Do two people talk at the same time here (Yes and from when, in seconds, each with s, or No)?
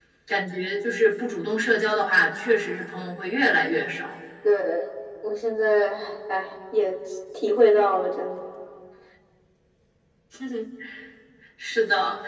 No